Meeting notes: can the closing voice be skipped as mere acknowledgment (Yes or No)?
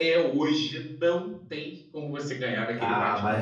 No